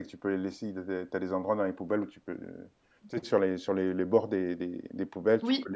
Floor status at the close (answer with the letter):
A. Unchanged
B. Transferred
A